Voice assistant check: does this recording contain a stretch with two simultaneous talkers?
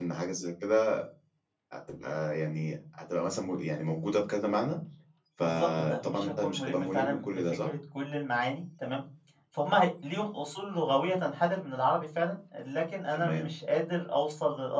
Yes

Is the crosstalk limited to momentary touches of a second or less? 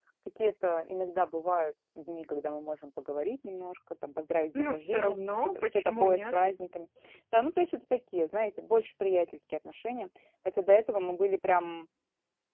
No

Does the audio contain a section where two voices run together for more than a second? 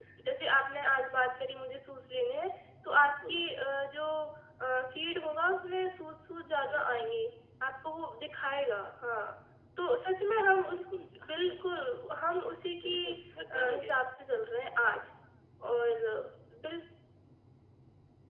No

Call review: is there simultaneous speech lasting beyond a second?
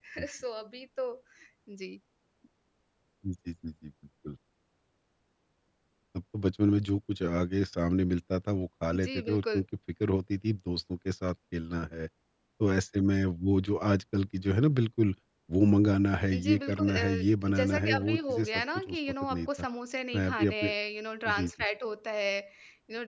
Yes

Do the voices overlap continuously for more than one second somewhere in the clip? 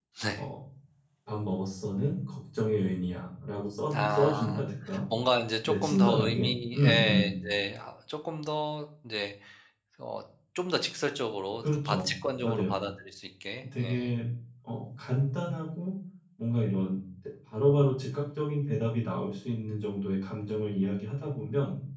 Yes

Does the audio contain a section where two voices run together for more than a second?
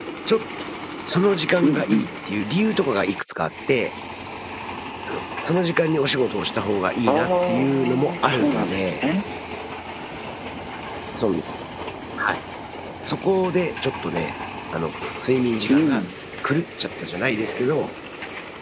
Yes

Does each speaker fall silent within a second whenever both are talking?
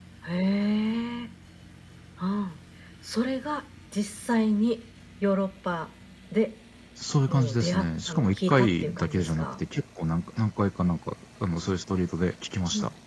No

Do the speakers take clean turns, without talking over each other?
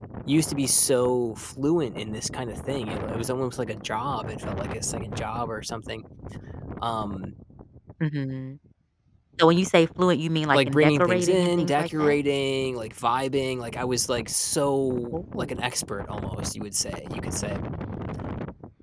No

